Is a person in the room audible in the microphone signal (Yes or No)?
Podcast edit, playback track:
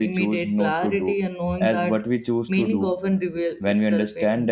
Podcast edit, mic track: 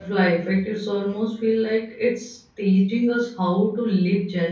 Yes